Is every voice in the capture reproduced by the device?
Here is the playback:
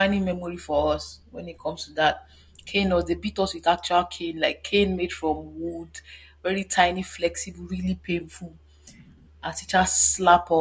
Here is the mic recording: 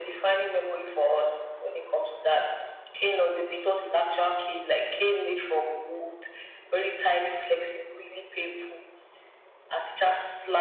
Yes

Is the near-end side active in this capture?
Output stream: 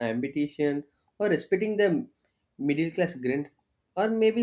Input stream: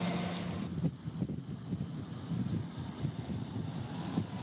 No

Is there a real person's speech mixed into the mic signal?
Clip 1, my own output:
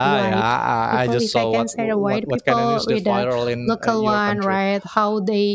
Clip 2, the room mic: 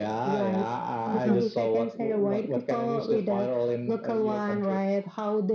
Yes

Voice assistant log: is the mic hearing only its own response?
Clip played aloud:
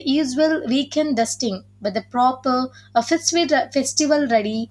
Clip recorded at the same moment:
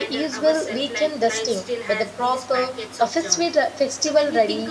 No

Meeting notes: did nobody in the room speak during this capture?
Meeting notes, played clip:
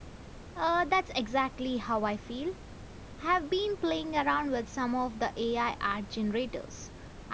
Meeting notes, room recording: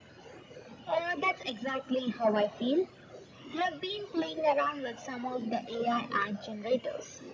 Yes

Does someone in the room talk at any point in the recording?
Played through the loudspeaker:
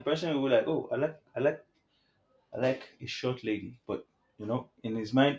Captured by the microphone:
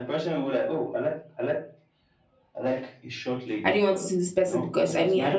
Yes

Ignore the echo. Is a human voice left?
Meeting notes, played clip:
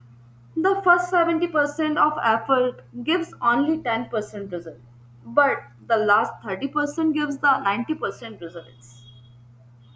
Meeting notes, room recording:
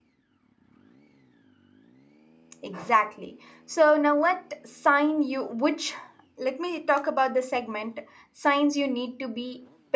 Yes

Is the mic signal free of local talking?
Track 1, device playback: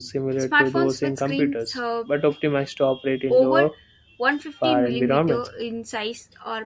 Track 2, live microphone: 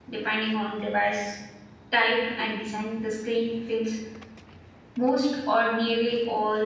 No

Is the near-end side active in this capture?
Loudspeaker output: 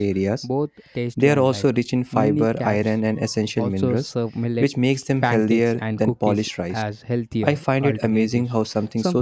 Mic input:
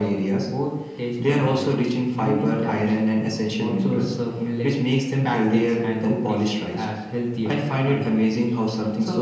No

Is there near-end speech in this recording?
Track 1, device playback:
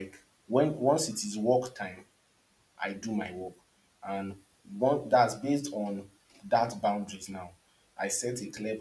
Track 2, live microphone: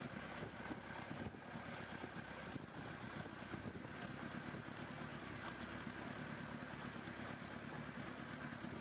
No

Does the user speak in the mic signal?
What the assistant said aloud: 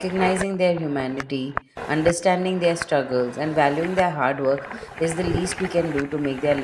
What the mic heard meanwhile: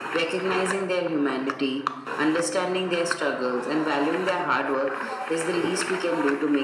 Yes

